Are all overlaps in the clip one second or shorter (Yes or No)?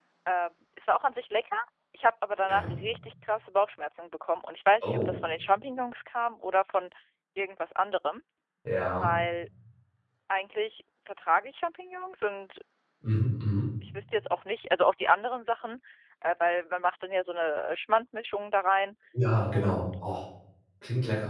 Yes